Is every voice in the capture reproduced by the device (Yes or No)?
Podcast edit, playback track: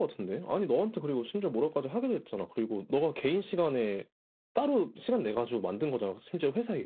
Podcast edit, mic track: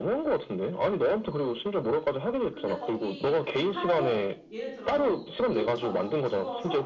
No